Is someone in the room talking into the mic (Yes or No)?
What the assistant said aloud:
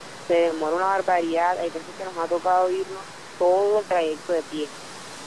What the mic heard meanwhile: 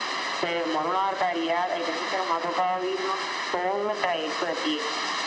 No